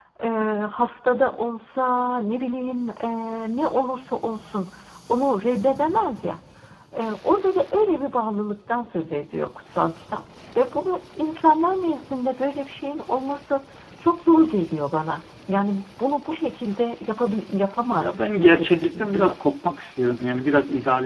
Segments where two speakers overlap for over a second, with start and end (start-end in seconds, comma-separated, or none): 18.0-19.4